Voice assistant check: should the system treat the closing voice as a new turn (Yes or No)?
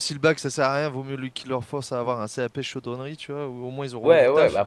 Yes